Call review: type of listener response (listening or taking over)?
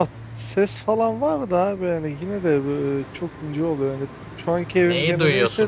taking over